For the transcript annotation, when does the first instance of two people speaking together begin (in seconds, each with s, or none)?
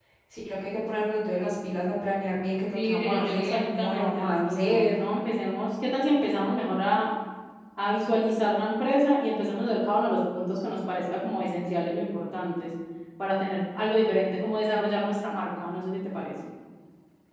2.7 s